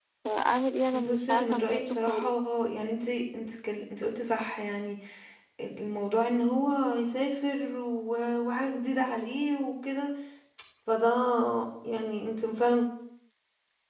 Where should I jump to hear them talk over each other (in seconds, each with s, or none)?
0.9 s